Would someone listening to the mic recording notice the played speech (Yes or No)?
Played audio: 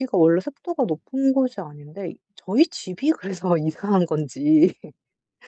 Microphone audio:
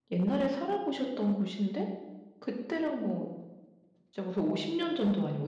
No